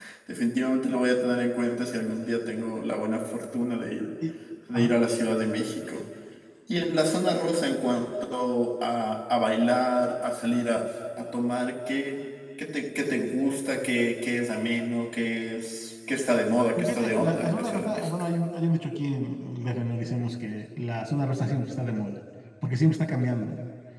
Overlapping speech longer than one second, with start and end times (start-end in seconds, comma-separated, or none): 16.8-18.1